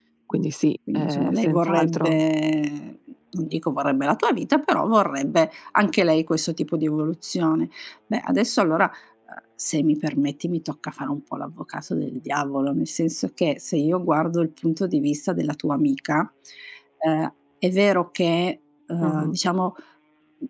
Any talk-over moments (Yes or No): Yes